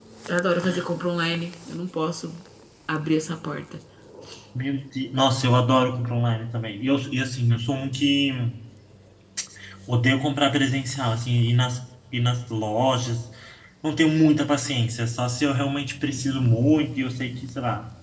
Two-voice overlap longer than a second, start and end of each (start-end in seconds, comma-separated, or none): none